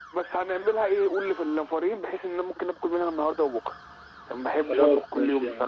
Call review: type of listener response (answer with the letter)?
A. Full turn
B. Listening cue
A